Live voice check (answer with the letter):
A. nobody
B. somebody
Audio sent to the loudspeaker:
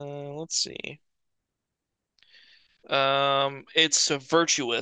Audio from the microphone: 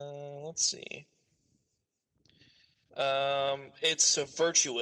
A